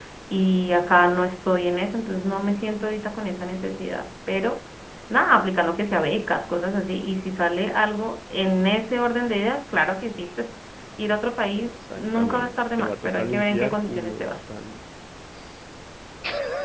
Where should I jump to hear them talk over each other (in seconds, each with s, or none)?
11.6 s